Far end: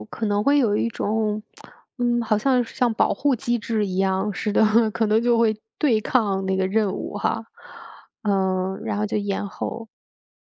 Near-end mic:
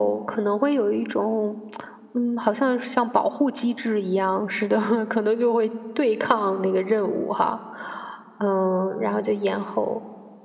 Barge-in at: none

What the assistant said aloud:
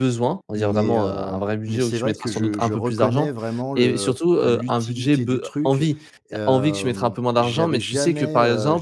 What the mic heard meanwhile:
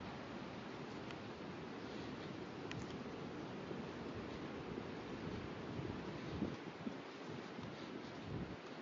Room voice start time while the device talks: none

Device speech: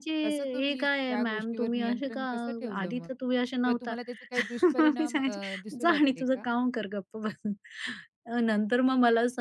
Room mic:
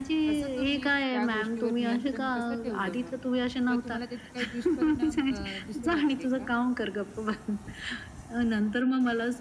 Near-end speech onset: none

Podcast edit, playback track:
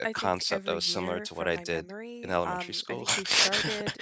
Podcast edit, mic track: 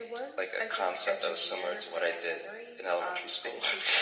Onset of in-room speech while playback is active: none

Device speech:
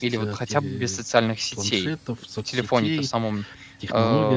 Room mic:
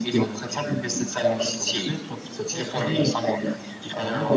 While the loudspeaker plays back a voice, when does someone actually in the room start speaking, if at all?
2.5 s

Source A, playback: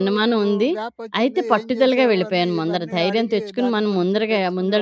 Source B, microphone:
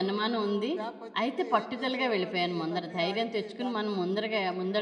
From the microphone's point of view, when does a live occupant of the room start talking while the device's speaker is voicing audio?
none

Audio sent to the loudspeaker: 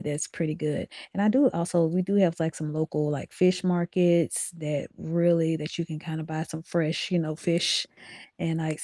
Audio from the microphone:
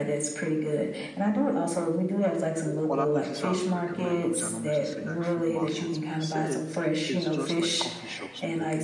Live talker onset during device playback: 2.6 s

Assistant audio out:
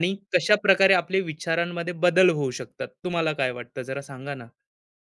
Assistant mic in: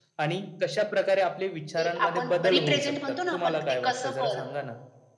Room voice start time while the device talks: 1.8 s

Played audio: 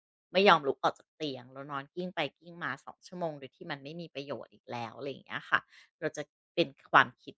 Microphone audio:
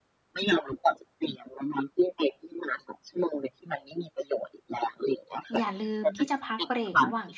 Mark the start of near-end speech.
5.6 s

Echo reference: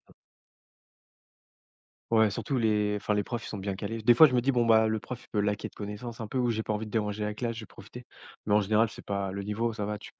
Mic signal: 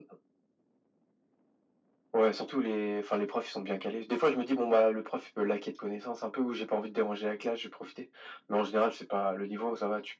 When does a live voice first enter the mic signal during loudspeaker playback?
none

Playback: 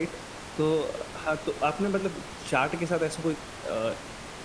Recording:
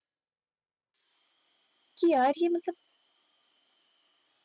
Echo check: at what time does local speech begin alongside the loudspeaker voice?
2.0 s

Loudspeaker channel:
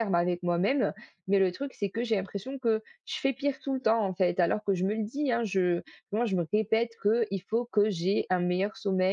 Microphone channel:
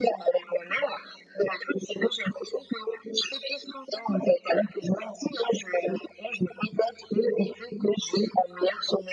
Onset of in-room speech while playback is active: none

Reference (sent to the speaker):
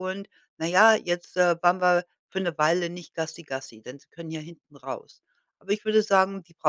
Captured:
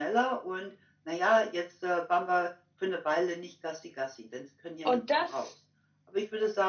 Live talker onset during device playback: 4.8 s

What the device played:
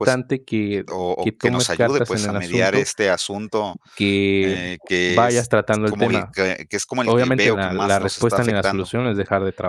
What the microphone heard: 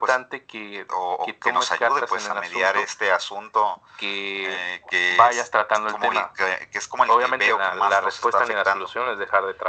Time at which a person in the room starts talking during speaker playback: none

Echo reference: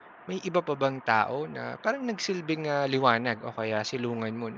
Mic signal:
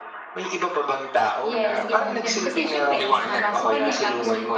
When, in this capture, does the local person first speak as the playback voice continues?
1.4 s

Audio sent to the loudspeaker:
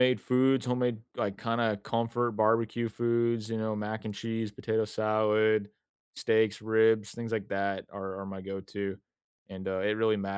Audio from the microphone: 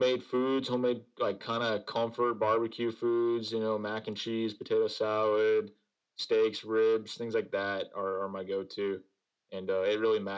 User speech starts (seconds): none

